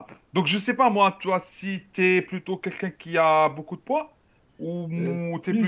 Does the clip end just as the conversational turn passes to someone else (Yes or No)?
Yes